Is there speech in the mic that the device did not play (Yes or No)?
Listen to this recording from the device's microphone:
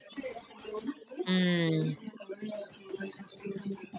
Yes